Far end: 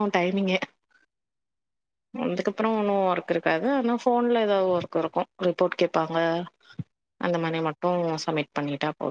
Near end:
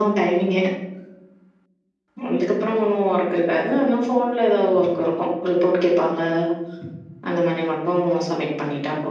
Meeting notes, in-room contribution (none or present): none